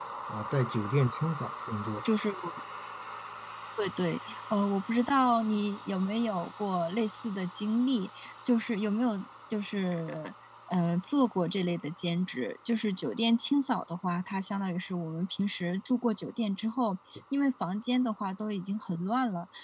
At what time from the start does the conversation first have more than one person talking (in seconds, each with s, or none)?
none